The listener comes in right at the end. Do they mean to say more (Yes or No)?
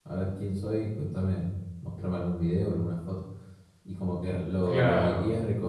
No